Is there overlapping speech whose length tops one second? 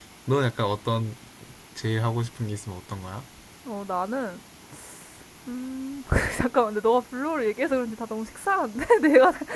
No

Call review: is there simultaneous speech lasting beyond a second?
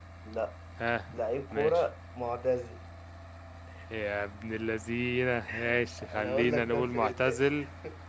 Yes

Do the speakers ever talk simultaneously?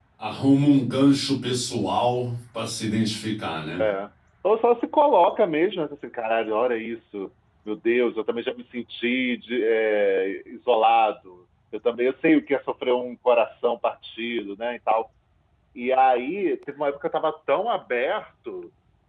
No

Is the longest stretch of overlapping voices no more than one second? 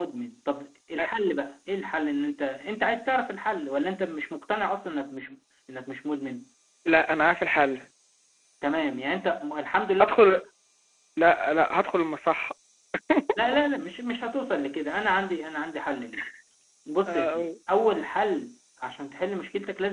Yes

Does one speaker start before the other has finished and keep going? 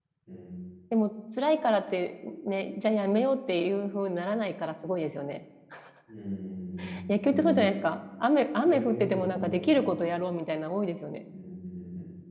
Yes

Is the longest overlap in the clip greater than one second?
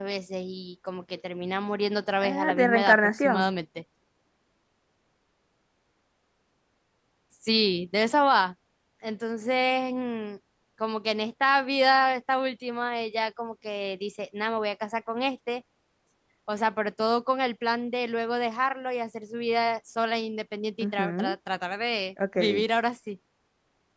Yes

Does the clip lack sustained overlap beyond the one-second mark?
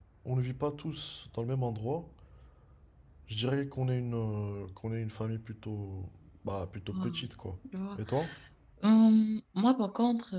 Yes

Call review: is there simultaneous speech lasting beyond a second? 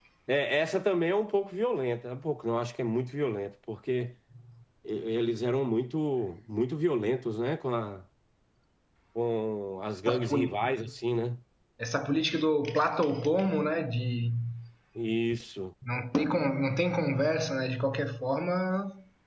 No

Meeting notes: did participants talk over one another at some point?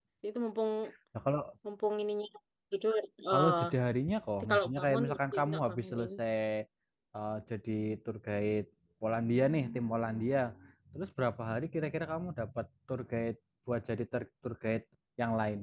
Yes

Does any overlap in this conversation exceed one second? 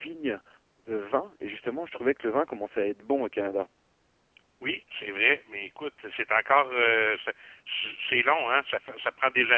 No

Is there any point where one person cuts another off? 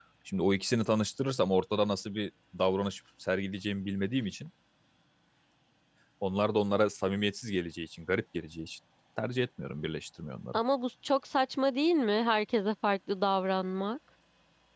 No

